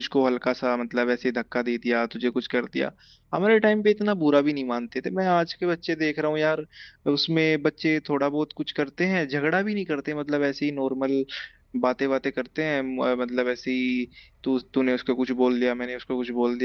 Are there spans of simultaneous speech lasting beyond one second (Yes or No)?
No